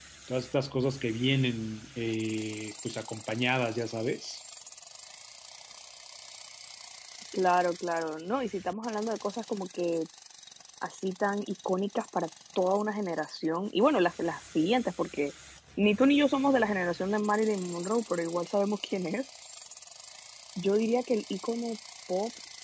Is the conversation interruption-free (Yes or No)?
Yes